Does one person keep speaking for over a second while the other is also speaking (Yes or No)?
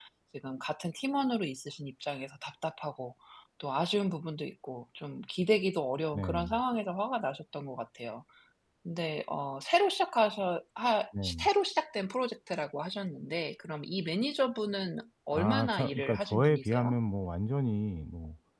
Yes